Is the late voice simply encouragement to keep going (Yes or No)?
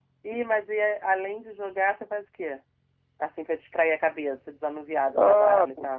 No